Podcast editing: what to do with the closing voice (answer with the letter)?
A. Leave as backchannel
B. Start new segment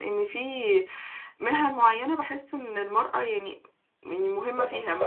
A